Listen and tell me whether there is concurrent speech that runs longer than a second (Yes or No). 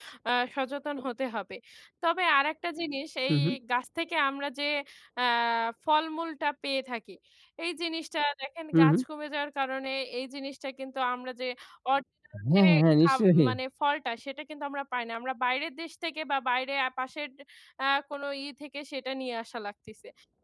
No